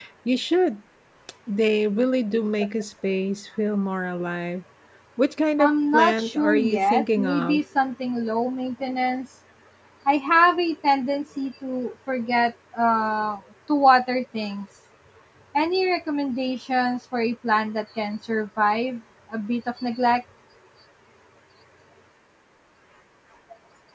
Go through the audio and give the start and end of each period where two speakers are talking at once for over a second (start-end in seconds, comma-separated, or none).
5.6-7.6